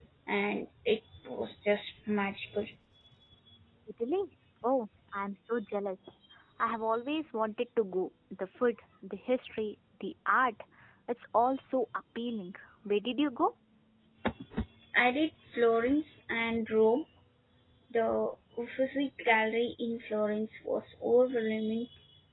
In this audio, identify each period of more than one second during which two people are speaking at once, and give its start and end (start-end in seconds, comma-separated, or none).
none